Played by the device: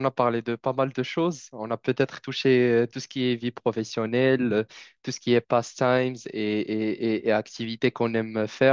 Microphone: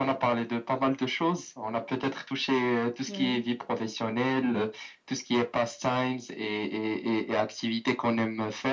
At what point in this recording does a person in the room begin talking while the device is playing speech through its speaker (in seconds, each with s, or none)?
3.1 s